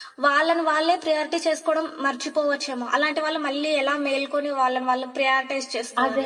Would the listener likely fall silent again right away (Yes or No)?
No